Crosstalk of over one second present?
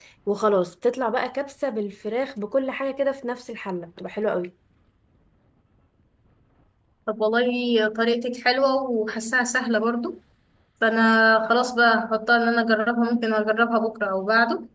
No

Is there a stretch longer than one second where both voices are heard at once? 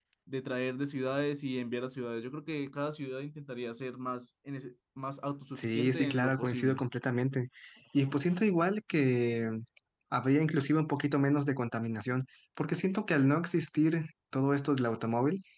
Yes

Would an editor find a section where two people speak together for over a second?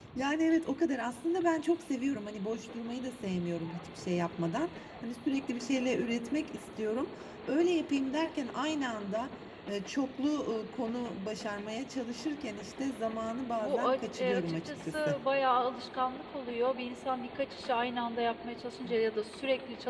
Yes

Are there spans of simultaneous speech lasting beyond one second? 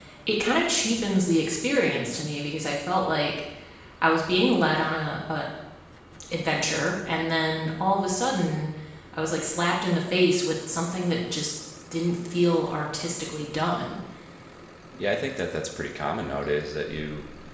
No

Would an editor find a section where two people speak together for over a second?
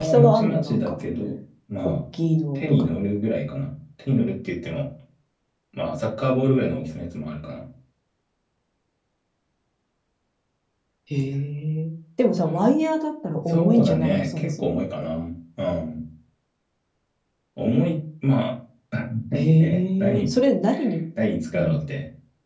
Yes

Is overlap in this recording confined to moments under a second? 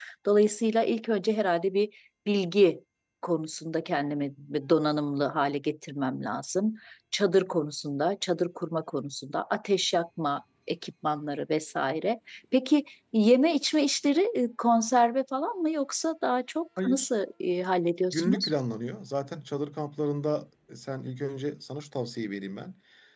Yes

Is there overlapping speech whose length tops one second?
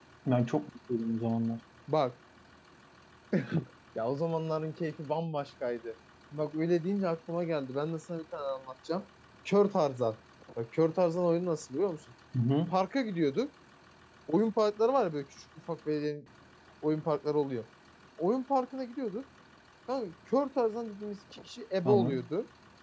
No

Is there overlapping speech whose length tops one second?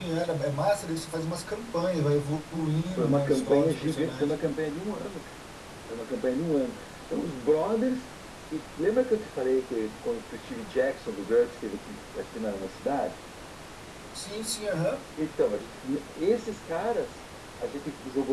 Yes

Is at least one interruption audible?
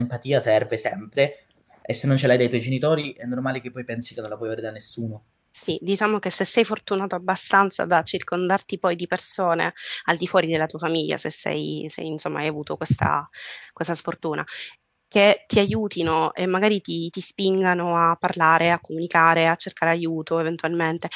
No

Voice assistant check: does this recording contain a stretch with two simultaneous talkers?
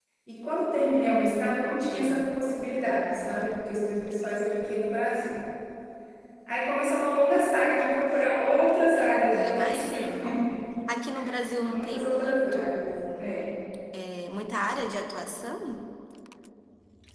Yes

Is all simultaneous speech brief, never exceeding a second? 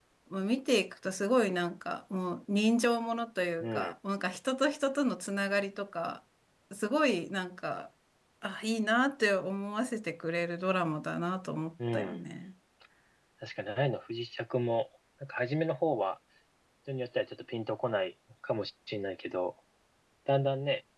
Yes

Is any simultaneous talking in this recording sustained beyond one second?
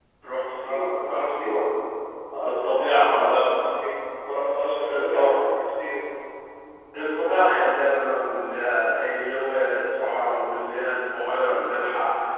Yes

